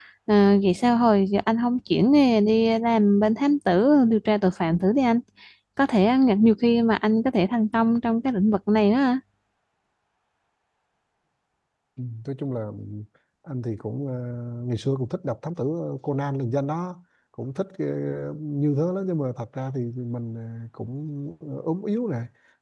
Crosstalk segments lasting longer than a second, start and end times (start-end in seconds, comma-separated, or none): none